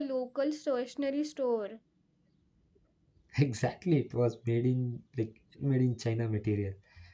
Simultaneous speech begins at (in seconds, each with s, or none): none